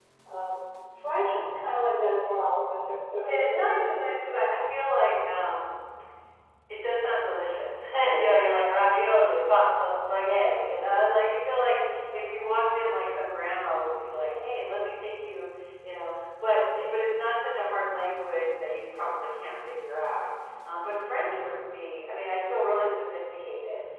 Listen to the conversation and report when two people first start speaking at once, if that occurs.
3 s

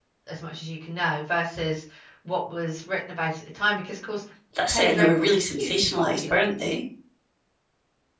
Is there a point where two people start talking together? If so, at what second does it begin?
5 s

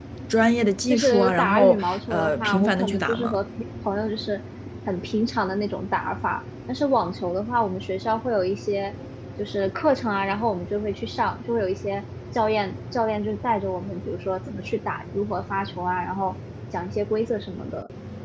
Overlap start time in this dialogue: 1 s

